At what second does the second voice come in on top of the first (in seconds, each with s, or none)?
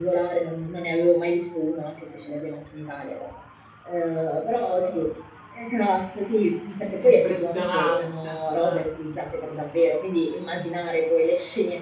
7.0 s